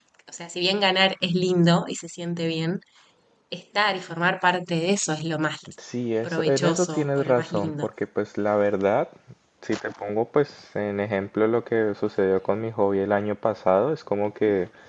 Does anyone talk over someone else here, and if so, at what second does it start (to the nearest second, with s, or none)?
6 s